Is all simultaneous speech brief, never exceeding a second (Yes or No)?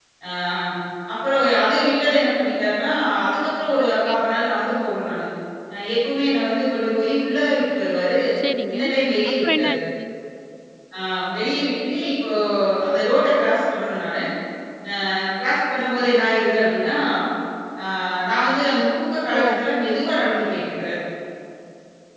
Yes